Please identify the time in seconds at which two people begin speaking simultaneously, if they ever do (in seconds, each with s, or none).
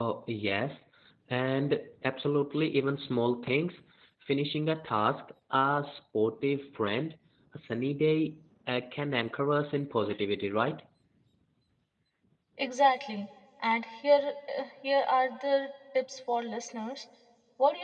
none